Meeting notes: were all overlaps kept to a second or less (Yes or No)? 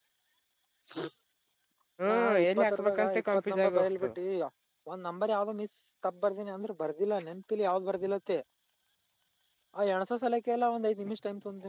No